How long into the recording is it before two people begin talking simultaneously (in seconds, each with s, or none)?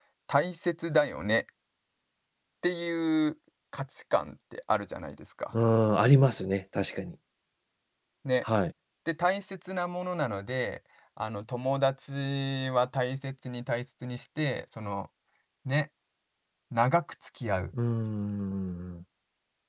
none